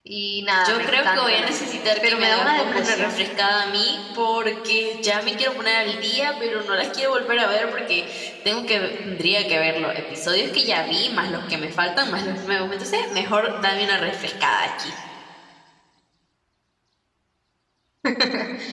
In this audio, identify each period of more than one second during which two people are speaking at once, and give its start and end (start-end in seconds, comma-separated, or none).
0.6-3.2